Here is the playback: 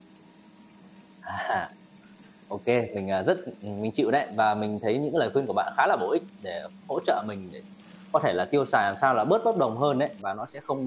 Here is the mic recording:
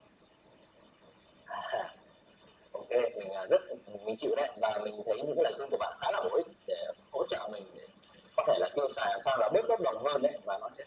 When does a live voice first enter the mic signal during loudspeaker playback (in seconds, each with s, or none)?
none